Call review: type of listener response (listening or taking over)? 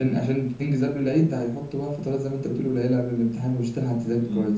taking over